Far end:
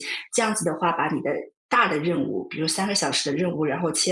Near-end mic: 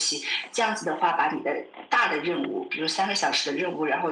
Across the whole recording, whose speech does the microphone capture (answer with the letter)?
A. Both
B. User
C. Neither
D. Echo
D